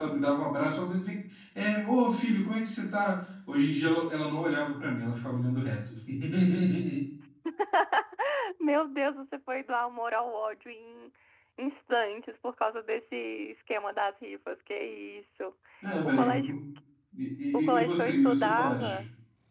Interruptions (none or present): present